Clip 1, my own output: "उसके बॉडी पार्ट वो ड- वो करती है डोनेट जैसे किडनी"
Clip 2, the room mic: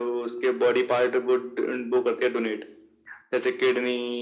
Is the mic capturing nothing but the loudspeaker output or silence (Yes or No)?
Yes